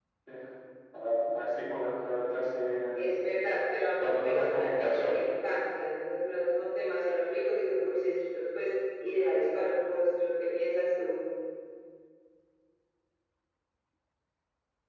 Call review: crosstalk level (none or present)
present